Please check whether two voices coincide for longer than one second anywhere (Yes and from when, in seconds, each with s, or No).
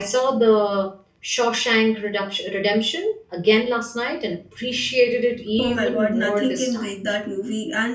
Yes, from 5.6 s